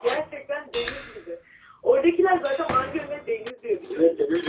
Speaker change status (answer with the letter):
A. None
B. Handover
B